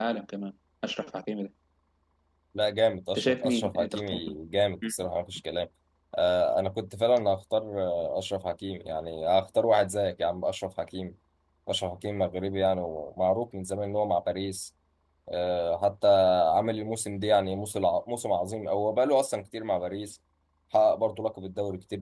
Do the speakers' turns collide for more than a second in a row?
Yes, from 3.2 s

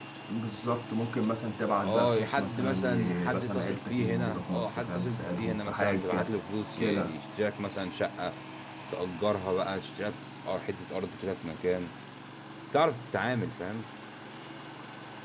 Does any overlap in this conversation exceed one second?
Yes, from 1.8 s

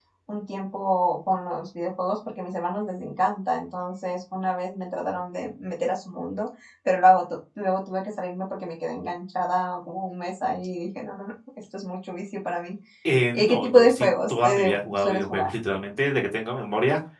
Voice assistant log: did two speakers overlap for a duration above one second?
Yes, from 13.3 s

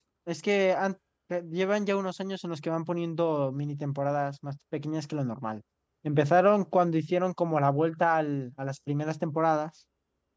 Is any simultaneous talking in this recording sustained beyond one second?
No

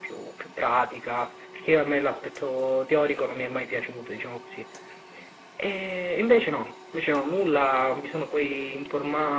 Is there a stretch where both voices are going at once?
No

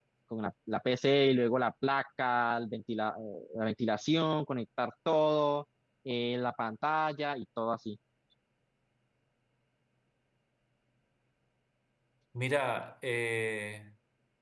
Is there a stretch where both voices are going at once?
No

